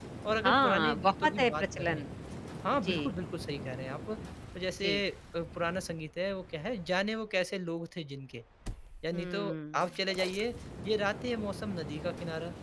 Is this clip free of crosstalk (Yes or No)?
No